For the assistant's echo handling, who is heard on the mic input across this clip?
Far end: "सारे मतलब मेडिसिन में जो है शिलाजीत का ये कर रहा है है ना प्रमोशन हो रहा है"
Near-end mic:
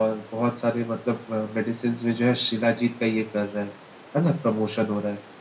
echo only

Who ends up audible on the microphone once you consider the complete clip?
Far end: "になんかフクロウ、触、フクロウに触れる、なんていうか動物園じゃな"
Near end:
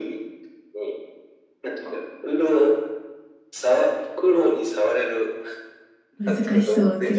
both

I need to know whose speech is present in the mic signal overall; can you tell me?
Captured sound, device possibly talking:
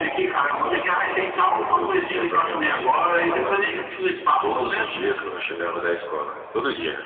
echo only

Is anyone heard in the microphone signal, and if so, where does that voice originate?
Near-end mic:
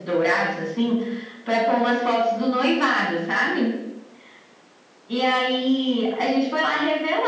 echo only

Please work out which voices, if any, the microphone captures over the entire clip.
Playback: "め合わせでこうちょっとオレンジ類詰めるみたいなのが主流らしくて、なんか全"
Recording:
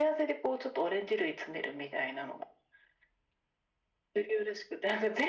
echo only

